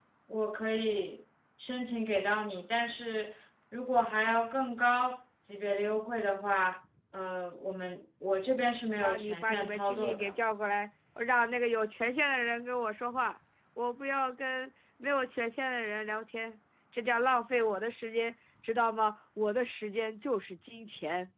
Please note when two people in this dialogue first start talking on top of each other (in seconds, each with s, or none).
8.9 s